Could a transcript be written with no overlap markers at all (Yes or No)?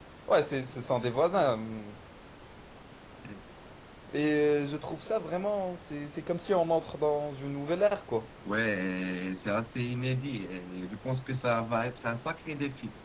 Yes